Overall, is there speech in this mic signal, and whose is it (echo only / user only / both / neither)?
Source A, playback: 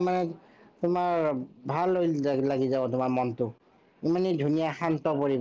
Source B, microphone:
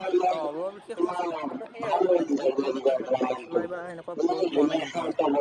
both